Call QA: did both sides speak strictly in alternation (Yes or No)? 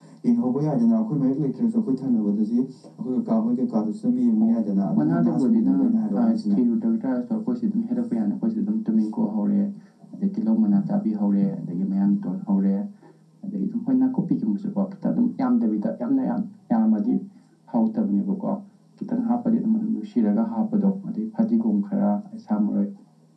No